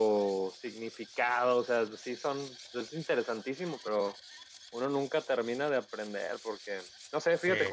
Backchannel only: Yes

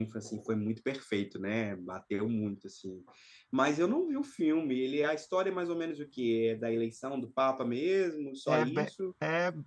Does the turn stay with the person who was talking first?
No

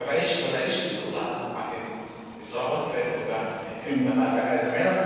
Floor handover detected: No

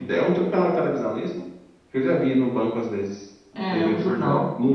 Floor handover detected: Yes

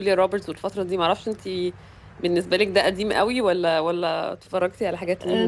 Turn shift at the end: Yes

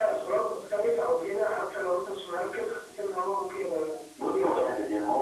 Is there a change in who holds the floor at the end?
Yes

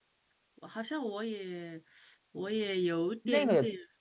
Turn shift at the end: Yes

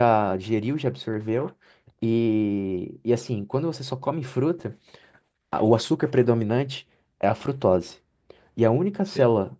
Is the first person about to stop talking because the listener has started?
No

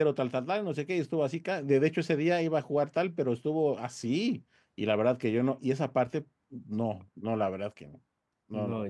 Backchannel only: No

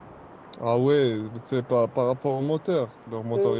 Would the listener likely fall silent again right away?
No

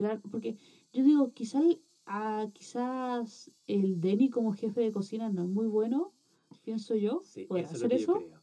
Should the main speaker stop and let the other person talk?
Yes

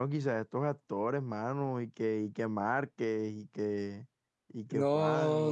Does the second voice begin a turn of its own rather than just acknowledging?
Yes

